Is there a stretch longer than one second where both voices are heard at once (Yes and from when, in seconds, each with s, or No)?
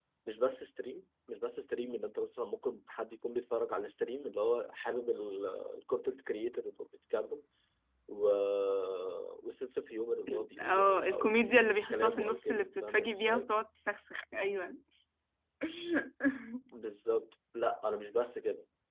Yes, from 10.3 s